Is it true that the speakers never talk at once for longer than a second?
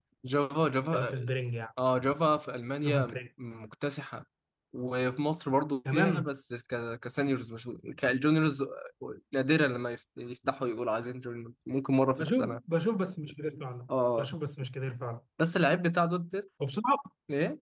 Yes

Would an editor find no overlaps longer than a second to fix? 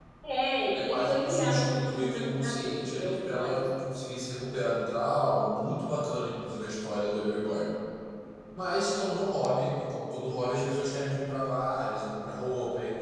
No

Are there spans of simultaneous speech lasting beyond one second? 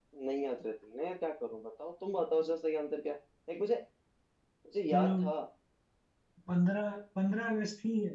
No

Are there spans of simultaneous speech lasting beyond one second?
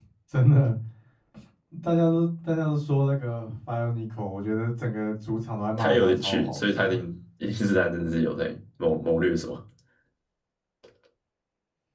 Yes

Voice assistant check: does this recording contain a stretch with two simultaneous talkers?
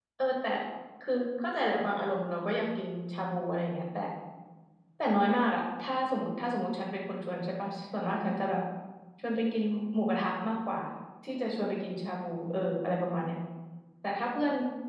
No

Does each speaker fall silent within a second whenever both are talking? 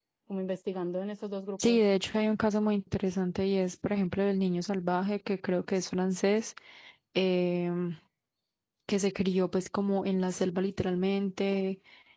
Yes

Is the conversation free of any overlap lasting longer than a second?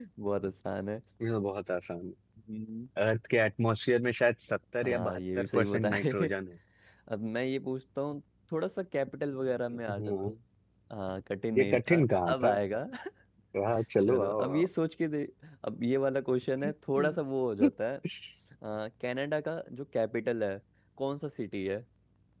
No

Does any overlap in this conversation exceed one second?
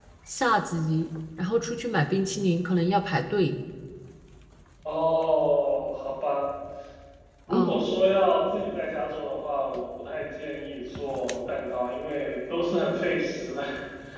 No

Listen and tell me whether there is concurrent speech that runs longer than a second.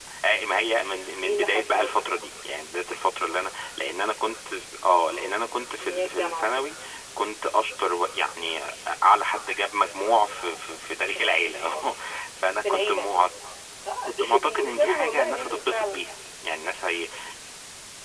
Yes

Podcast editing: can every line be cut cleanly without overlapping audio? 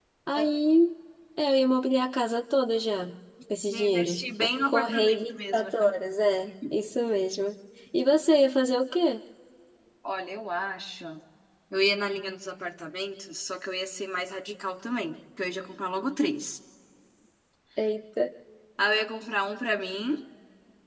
No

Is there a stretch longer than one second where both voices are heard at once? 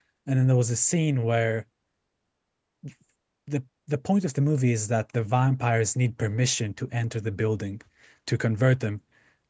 No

